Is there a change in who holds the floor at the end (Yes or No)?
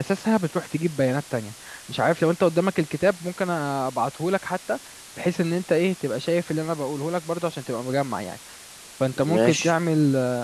No